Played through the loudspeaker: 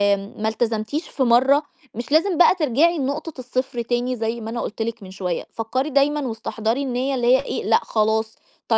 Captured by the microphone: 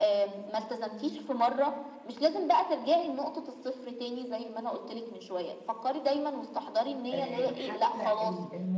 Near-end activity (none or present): present